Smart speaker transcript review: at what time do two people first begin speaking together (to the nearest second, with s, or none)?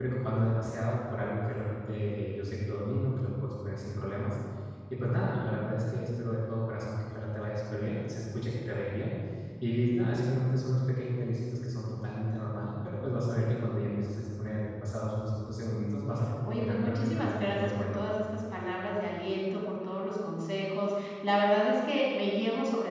16 s